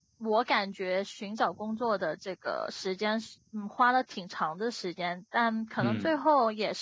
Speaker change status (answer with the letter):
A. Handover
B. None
B